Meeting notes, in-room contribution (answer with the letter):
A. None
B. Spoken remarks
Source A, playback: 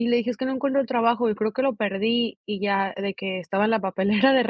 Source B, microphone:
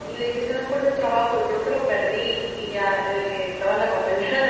A